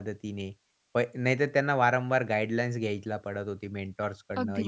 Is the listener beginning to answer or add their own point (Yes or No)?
No